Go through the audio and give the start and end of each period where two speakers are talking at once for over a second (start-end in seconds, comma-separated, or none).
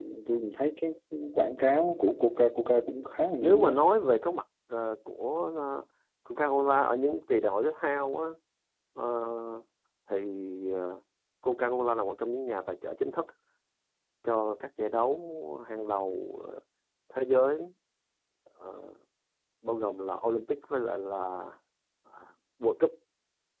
none